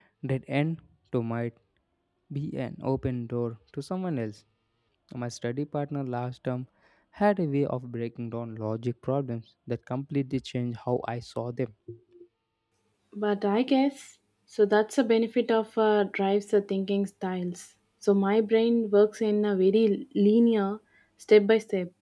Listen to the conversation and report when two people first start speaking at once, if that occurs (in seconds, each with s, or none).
none